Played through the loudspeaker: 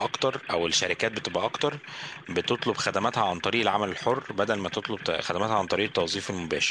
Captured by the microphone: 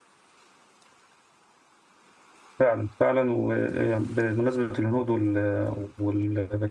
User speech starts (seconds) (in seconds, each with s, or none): 2.6 s